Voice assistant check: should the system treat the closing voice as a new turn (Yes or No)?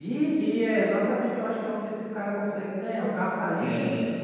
No